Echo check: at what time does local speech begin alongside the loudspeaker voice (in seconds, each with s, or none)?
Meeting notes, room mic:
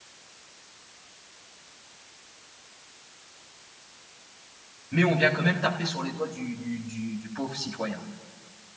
4.9 s